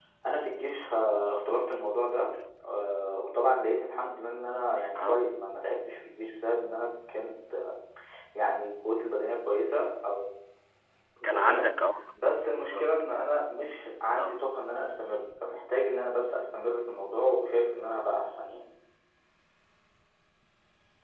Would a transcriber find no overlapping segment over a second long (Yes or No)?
Yes